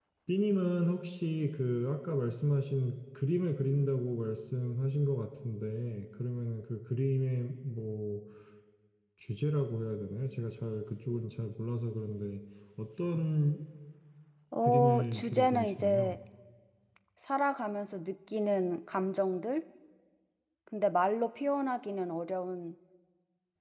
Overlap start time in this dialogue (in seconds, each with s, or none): 14.6 s